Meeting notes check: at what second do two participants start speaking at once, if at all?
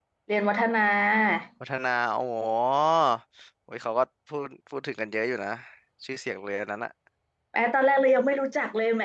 none

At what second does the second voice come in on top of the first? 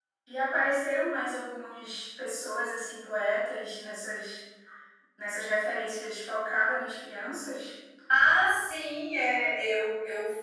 none

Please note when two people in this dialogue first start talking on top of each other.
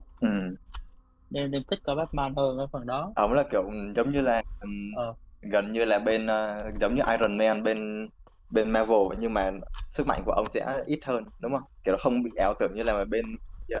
none

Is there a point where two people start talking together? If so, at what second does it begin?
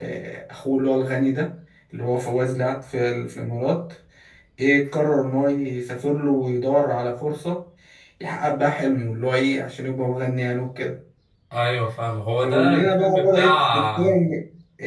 12.3 s

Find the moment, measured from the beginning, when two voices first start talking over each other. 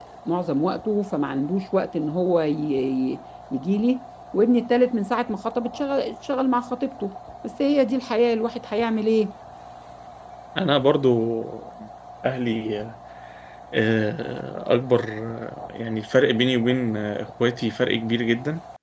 none

